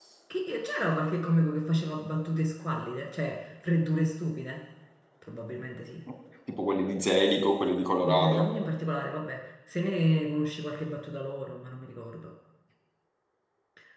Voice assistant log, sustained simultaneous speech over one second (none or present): none